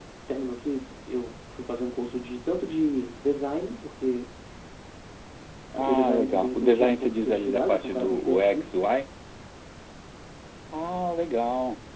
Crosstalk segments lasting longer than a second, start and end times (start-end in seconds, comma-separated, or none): 5.8-8.7